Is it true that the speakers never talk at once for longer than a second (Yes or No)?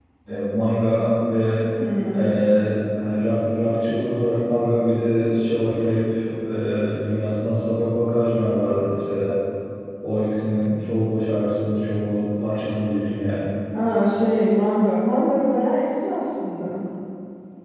Yes